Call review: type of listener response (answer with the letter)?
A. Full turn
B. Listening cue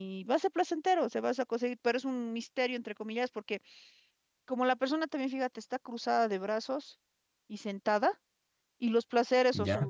B